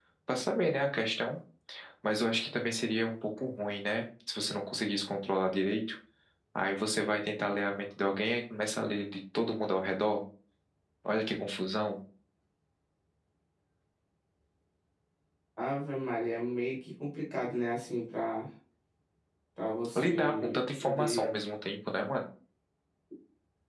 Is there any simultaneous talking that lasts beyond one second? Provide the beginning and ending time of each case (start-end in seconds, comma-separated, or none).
19.9-21.4